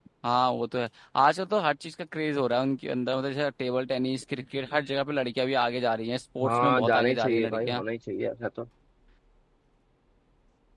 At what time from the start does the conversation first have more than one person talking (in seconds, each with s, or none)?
6.4 s